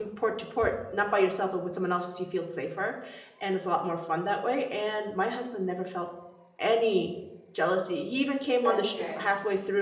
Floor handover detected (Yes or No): No